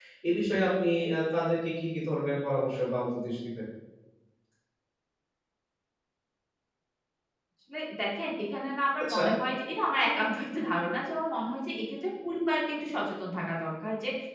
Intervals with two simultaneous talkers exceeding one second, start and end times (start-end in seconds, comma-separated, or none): none